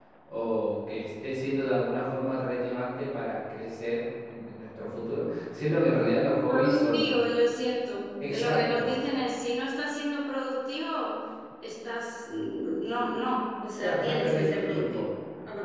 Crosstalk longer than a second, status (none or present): present